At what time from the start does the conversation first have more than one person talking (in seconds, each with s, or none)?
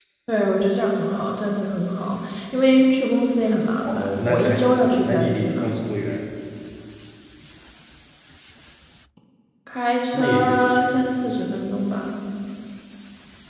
3.9 s